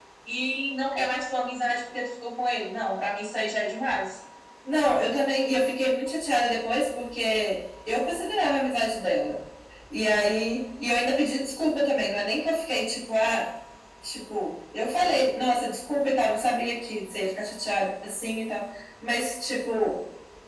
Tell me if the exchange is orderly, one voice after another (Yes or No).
Yes